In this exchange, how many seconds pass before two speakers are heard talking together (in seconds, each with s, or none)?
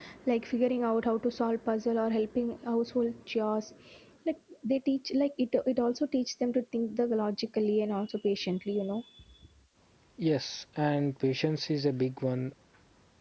none